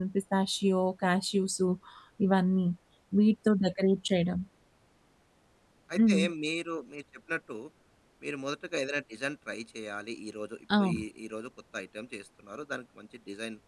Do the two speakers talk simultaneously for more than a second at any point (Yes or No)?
No